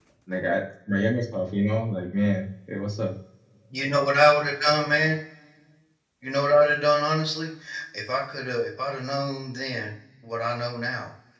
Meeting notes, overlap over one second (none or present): none